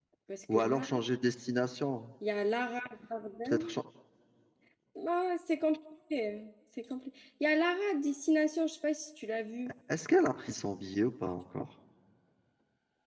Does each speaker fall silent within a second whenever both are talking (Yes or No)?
Yes